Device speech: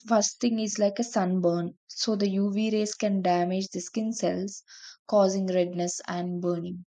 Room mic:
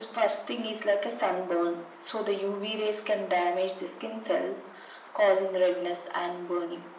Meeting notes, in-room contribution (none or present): none